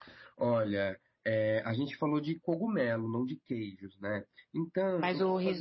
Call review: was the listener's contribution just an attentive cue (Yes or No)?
No